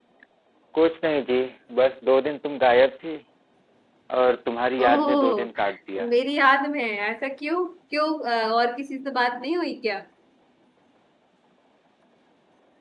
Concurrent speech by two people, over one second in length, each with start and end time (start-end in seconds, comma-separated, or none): 4.8-6.1